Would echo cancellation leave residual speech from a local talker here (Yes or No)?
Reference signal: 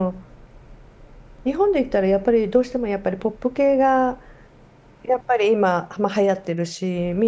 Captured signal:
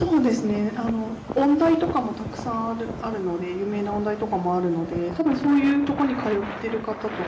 Yes